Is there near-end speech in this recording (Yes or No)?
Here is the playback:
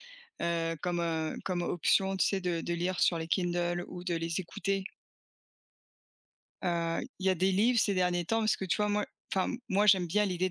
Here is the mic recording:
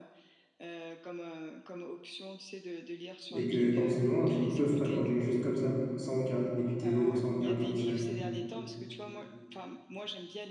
Yes